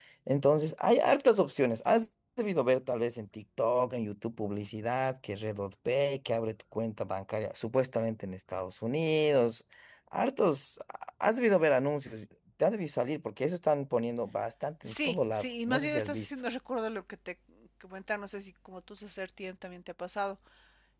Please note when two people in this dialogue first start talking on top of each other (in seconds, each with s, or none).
14.9 s